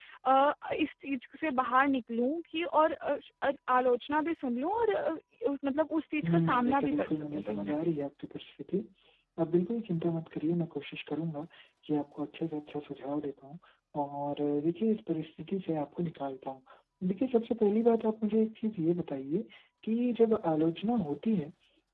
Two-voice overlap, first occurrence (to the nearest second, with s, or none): 6 s